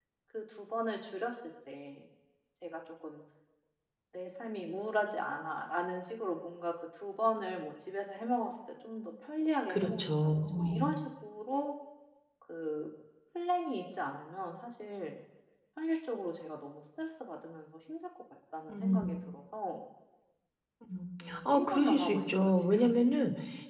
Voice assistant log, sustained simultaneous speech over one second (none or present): present